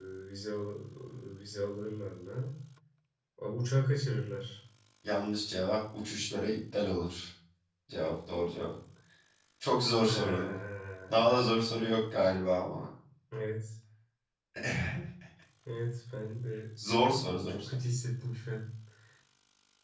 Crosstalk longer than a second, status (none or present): none